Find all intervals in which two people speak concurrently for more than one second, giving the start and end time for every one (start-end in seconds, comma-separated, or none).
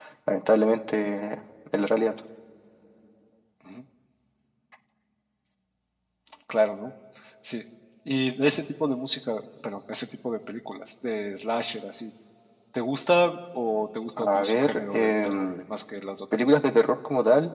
14.2-15.5